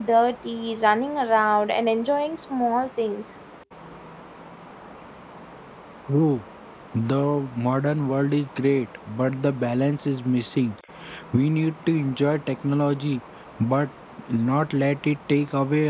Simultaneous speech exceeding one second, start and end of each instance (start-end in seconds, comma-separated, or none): none